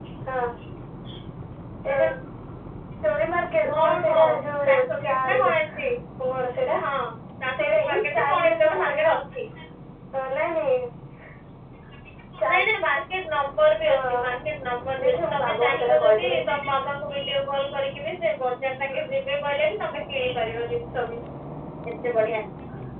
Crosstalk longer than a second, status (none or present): present